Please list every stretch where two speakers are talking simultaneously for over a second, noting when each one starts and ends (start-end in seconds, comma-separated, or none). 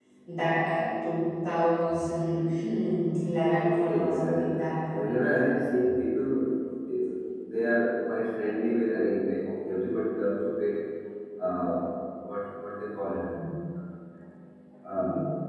3.6-5.3